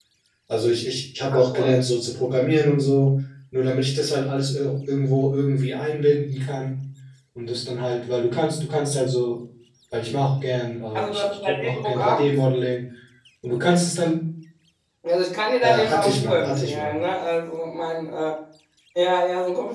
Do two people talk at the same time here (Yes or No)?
Yes